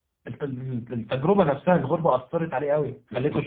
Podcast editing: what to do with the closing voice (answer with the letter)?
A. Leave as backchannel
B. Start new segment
B